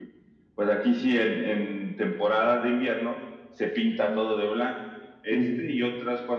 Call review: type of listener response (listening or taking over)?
listening